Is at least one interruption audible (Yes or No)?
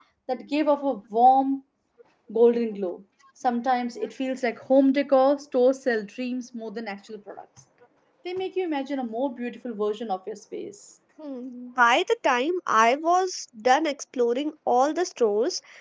No